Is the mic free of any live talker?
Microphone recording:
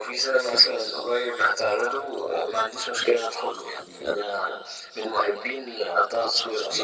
Yes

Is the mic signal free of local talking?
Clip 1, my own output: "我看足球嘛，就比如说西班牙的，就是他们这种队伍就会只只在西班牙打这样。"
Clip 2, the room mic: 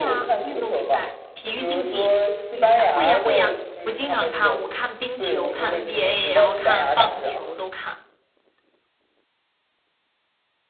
No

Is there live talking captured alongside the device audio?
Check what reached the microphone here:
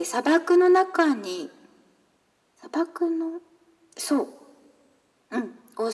No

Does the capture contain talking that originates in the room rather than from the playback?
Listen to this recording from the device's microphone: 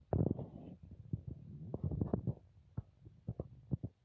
No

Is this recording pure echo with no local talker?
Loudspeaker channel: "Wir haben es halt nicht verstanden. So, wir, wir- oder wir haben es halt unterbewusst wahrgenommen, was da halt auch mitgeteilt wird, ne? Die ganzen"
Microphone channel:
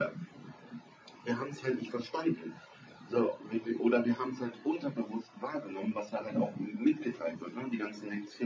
Yes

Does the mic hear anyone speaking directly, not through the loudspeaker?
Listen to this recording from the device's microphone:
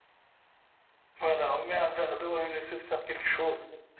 No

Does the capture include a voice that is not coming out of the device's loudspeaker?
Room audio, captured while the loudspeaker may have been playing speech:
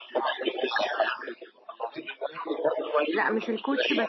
Yes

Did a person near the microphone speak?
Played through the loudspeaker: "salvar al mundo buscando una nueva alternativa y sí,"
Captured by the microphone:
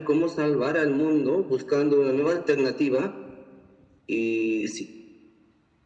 No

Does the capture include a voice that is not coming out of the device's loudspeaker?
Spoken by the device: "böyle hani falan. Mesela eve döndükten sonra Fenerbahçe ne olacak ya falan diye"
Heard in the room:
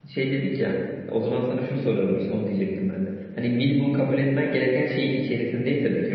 Yes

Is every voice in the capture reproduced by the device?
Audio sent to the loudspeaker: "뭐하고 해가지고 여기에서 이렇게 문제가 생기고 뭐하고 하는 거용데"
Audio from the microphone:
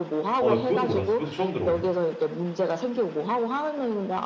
No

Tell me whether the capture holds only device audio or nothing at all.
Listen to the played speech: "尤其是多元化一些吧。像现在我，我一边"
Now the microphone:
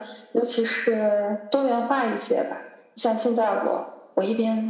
Yes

